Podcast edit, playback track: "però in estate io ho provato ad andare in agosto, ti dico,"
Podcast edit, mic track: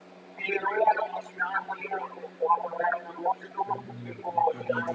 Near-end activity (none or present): present